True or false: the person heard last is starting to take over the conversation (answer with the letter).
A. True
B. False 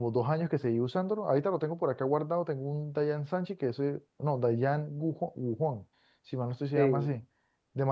B